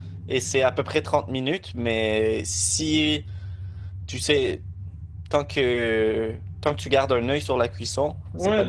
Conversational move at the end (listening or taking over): taking over